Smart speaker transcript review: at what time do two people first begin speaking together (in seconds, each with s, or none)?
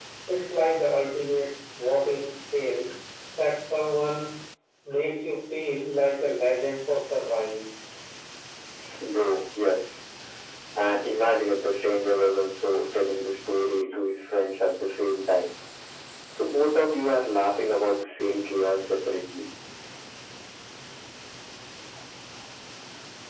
none